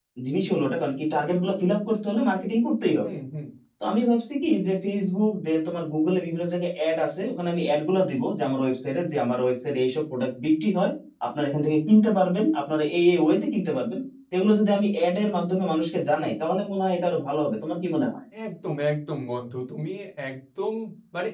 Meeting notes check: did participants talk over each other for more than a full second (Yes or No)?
No